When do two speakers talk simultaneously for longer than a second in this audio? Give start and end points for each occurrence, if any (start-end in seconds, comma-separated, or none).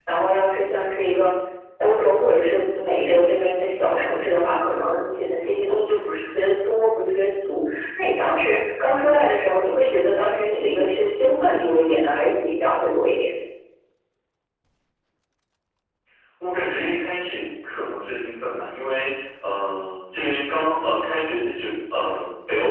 none